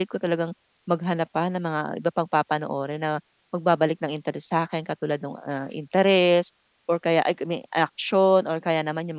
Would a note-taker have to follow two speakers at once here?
No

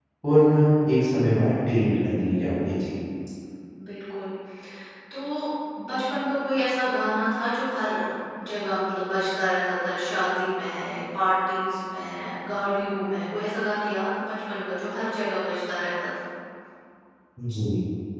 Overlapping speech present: No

